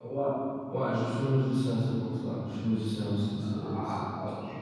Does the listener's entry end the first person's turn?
Yes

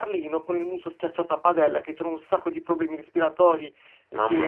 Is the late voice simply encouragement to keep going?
Yes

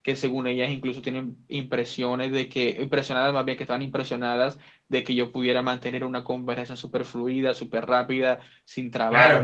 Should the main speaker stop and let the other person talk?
Yes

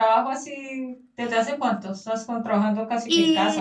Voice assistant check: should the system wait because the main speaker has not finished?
No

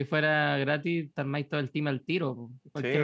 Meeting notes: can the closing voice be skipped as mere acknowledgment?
No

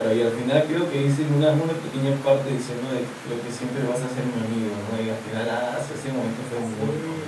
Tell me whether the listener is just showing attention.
No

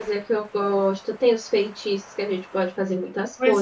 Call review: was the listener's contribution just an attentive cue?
No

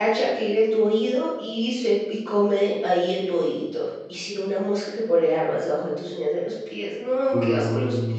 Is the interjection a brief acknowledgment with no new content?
No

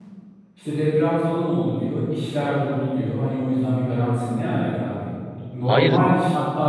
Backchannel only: Yes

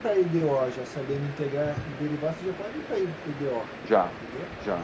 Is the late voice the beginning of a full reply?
Yes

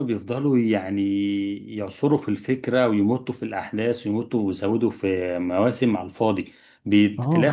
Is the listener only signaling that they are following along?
Yes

